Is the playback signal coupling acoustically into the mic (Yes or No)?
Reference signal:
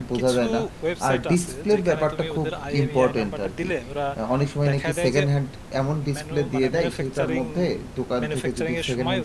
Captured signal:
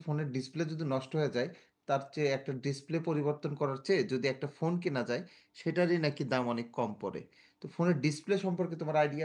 No